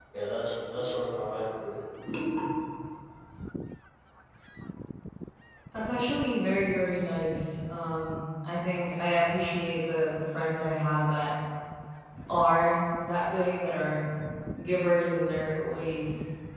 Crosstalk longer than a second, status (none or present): none